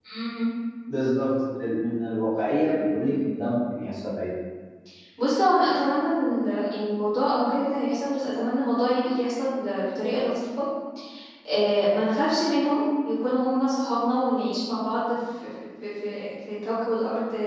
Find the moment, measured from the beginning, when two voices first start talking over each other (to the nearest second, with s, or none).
none